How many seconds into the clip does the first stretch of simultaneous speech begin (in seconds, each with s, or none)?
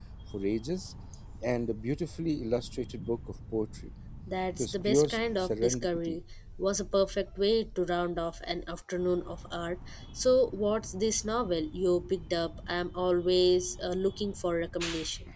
4.6 s